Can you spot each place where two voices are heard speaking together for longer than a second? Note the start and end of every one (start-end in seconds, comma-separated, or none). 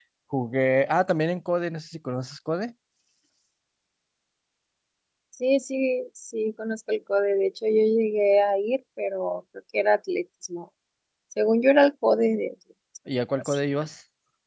none